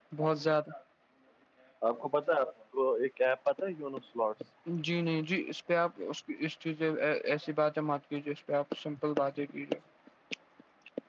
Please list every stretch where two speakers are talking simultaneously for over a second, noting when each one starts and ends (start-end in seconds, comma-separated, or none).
none